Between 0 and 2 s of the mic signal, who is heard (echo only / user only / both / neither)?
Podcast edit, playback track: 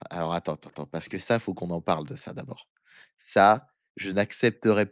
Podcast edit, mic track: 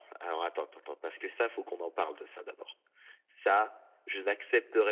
echo only